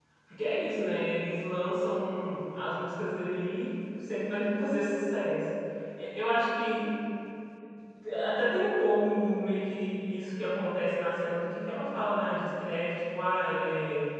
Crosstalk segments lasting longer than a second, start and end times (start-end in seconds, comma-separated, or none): none